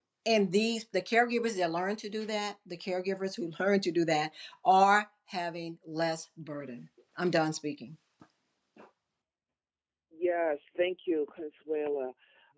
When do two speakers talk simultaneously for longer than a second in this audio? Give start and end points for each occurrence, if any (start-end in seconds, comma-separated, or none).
none